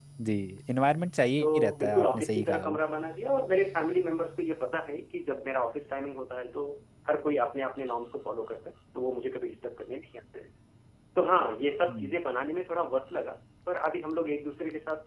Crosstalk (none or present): present